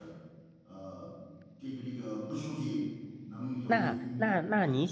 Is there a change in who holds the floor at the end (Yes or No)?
Yes